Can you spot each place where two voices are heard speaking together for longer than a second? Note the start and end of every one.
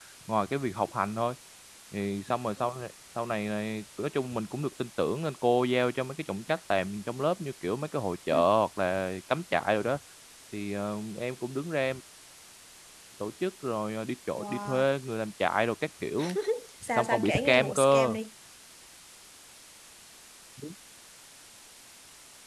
17.0-18.2

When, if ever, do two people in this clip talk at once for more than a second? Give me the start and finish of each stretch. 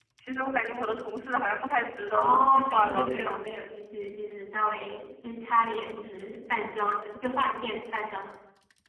2.1-3.4

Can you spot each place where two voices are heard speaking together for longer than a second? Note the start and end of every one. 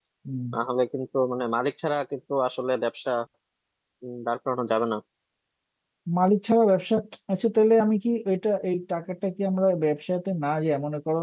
none

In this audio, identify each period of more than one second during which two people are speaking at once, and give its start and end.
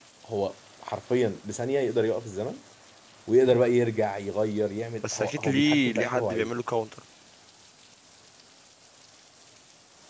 5.1-6.5

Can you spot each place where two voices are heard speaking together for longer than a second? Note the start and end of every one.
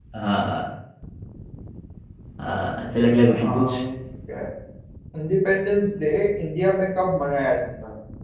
none

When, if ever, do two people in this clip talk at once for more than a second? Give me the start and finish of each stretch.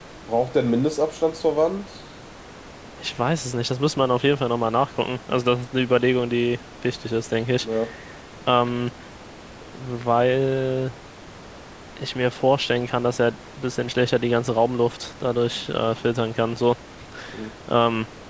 none

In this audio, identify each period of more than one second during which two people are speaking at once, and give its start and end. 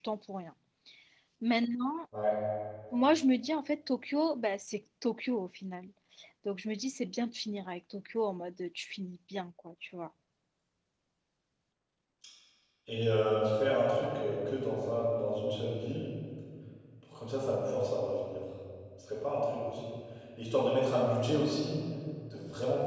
none

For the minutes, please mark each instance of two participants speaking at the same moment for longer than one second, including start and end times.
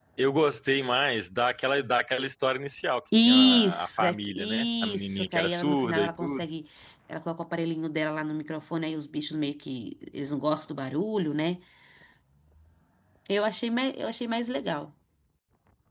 3.2-6.4

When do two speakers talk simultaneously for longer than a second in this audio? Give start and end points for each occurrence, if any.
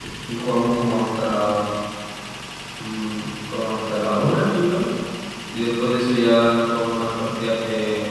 none

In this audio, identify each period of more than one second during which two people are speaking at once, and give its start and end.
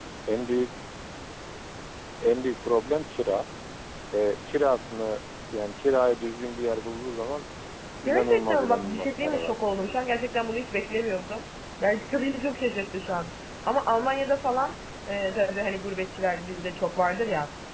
8.1-10.0

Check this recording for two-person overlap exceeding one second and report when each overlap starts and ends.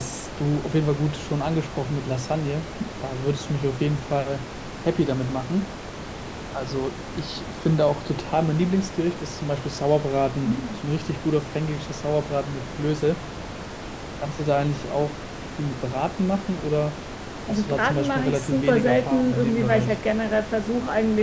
17.5-20.0

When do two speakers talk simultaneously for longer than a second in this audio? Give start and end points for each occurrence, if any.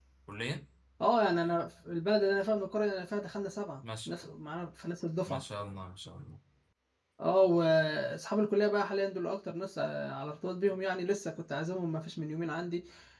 none

